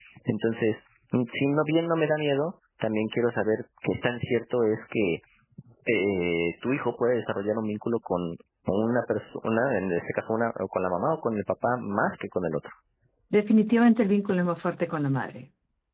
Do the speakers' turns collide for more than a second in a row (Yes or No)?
No